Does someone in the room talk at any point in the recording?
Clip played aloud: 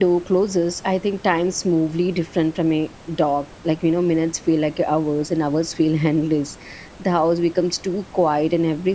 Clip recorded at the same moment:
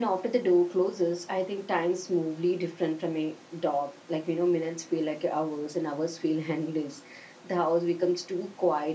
No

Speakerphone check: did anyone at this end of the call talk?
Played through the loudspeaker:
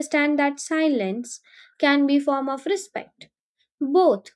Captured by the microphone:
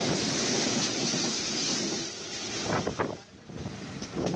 No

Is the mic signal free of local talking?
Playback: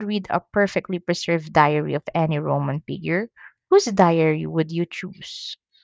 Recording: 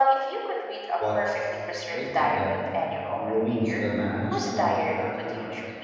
No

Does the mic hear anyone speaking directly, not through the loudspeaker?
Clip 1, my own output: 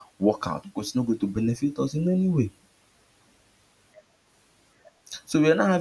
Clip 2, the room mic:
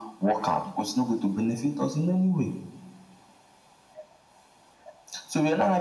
No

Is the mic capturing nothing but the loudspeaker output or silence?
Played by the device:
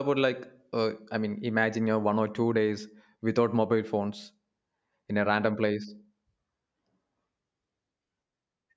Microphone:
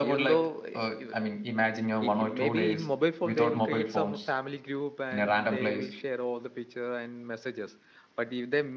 No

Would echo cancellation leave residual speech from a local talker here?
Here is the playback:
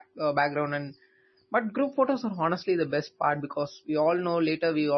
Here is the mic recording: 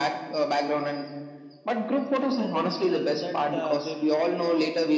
Yes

